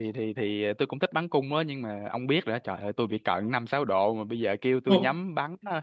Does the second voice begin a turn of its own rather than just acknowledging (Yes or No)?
No